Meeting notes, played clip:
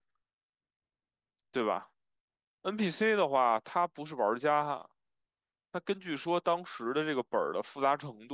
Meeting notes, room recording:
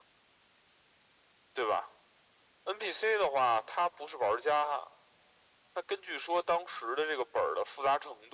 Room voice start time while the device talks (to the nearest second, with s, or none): none